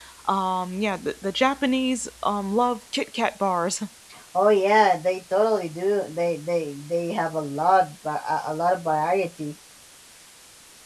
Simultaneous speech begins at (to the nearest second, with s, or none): none